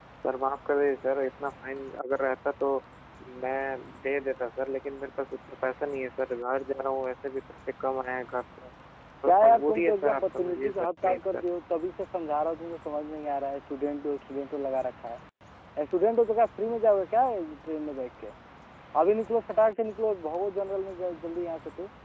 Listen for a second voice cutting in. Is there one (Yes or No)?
Yes